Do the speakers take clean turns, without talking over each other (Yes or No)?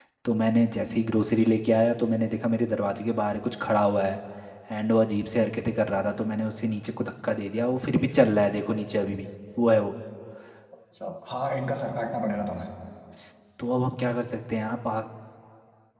Yes